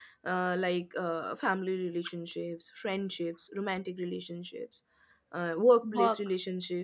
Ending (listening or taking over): listening